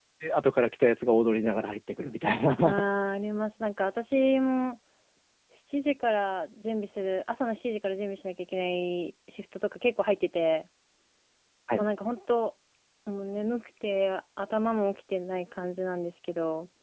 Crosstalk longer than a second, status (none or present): none